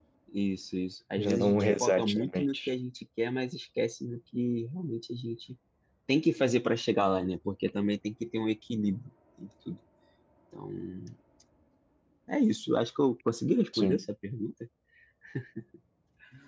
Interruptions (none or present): present